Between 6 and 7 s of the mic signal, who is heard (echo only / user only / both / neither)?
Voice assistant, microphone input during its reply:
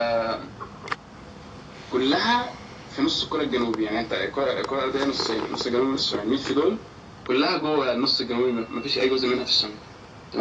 echo only